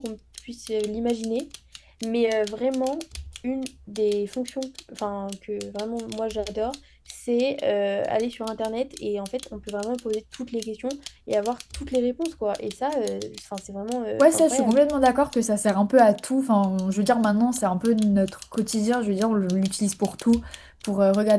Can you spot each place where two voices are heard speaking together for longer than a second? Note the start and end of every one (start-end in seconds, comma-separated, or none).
none